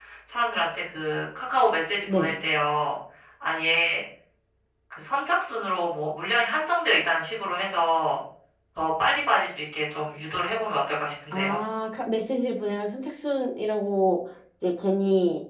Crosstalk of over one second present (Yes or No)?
No